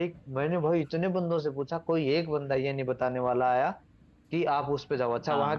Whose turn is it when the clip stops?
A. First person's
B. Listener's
A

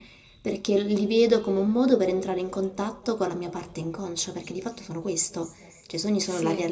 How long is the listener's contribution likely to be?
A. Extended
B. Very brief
B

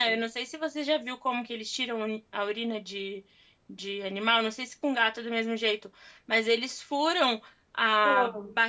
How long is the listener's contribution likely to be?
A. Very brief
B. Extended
A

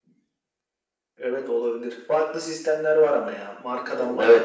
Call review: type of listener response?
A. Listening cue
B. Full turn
B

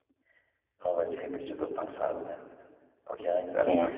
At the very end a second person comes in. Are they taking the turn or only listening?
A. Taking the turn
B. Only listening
B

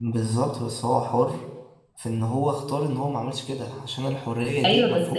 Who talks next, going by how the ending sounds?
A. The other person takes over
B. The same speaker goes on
A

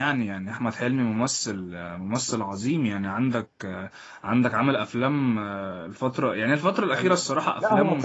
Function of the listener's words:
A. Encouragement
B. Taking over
B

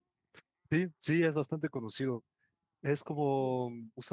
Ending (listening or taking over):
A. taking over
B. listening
B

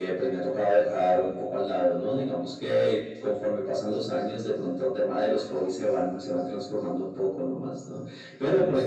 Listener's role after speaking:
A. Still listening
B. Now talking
A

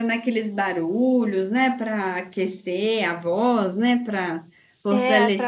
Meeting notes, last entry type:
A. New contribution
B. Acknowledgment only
A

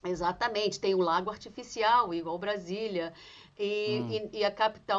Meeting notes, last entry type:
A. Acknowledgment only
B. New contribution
A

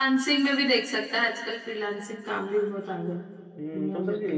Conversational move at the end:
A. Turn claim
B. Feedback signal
A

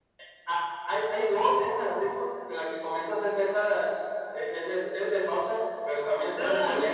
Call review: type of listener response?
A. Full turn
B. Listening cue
B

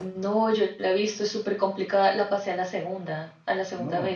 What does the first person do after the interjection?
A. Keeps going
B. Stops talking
B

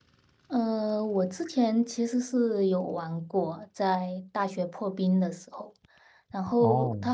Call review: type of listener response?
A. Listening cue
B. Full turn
A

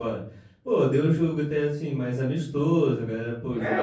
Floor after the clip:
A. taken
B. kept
A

